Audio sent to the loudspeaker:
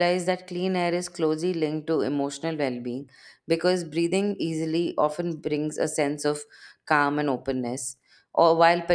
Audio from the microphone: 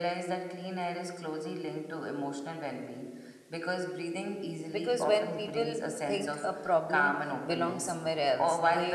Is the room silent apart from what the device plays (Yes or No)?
No